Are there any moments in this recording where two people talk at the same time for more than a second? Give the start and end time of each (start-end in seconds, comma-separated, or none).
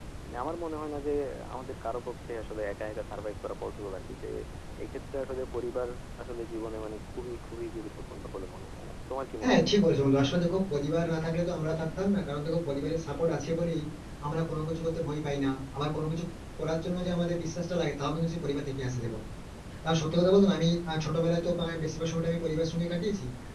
none